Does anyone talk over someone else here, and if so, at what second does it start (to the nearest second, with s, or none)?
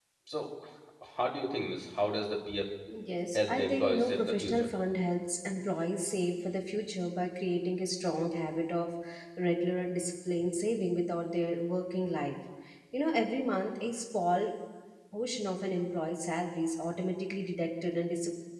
3 s